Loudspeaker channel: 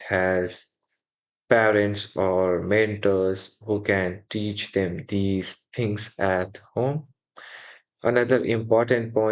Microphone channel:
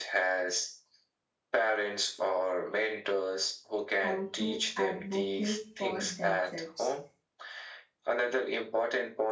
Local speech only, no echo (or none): how to advocate for themselves